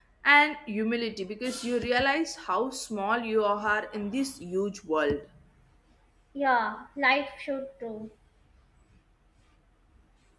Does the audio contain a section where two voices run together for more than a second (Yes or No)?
No